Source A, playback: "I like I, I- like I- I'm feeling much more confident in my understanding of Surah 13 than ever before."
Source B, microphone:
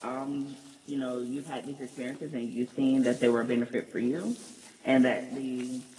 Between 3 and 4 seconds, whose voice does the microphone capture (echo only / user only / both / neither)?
user only